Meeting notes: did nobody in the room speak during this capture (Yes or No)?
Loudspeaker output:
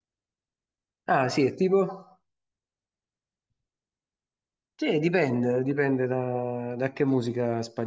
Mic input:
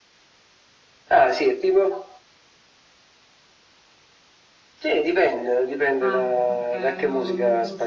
No